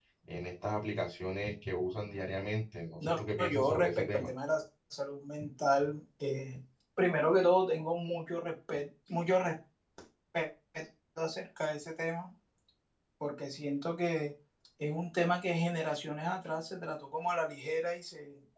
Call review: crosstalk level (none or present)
present